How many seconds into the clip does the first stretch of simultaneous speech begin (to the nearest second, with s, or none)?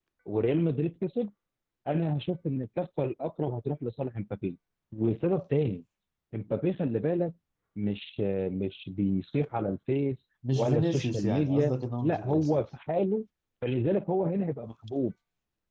10 s